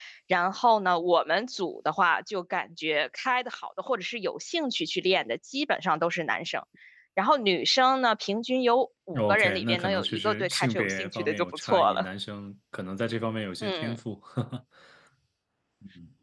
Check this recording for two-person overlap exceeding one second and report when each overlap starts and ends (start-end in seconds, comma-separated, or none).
9.2-12.1